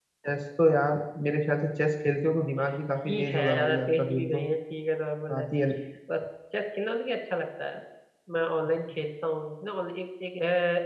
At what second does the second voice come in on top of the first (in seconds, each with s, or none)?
3.0 s